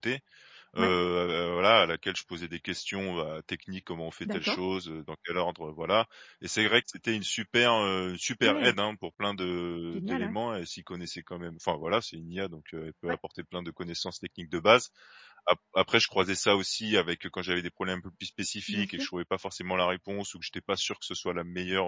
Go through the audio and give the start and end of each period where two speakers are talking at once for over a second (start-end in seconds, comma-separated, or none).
none